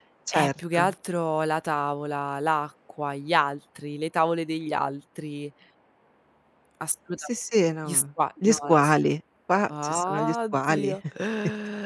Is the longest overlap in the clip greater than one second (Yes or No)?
Yes